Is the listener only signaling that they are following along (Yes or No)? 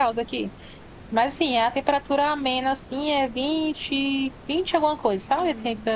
Yes